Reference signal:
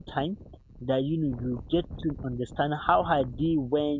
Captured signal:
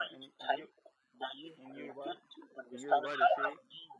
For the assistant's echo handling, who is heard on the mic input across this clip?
both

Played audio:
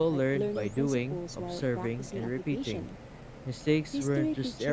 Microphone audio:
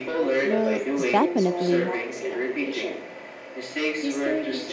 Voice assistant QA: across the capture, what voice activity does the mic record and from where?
both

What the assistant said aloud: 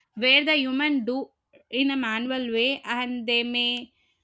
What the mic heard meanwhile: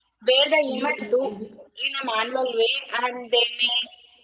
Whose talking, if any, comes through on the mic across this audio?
both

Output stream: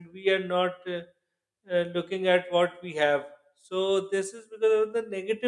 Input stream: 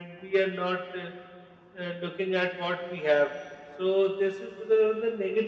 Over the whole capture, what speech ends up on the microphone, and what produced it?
echo only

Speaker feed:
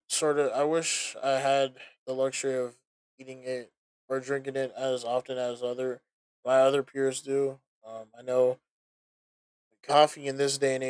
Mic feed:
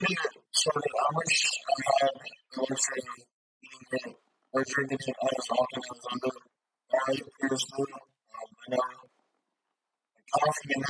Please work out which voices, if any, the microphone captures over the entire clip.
echo only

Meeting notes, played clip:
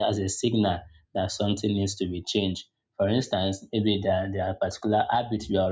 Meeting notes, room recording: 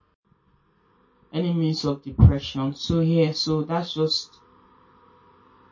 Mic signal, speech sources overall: user only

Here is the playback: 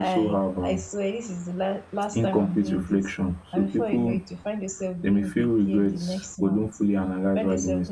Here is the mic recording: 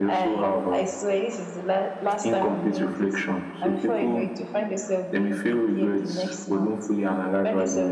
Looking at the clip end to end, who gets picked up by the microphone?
echo only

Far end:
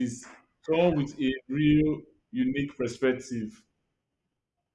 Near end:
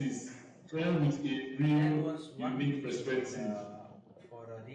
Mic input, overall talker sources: both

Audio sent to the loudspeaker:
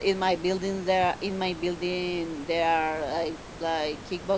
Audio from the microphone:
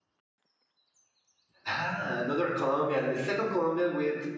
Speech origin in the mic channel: user only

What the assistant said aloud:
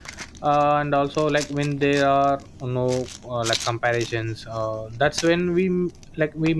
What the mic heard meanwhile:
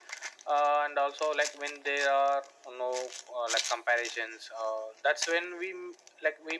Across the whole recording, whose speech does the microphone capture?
echo only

